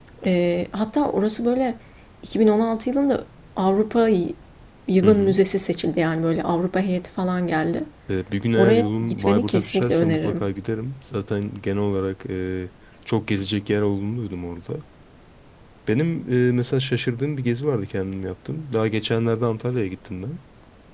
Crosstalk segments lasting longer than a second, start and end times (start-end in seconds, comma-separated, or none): 8.6-10.5